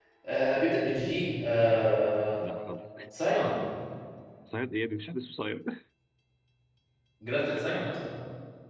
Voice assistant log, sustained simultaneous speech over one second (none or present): none